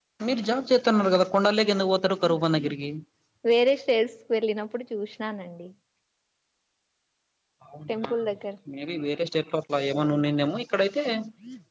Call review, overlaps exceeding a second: none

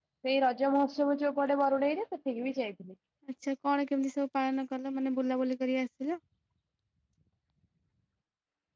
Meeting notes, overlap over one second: none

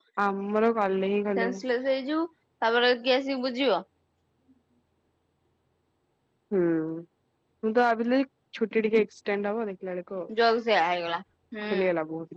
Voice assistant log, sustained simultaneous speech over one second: none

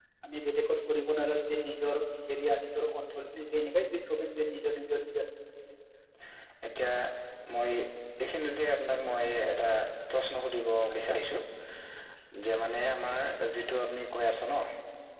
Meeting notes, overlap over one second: none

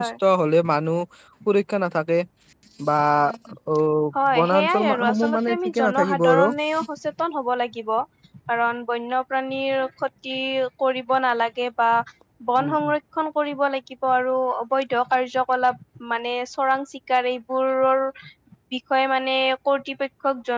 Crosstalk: present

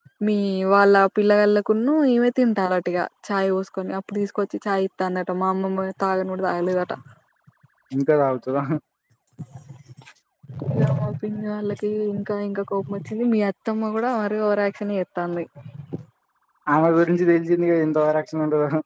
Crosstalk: none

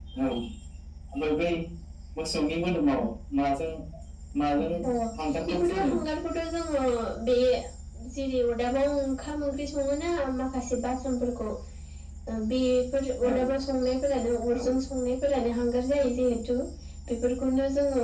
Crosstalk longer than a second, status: none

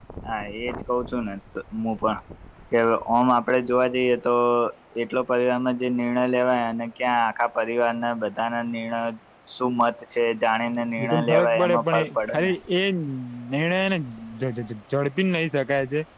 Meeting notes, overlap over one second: present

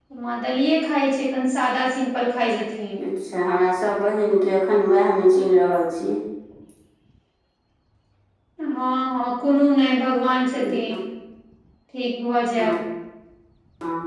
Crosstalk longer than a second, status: none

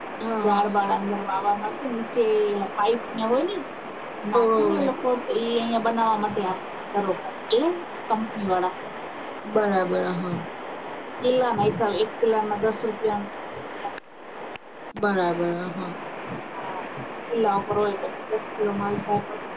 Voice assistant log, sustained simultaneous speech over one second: none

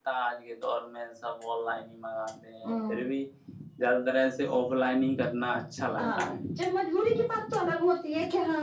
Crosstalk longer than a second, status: none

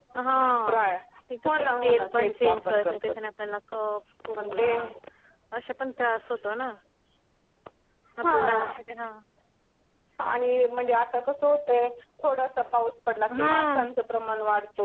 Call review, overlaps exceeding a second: present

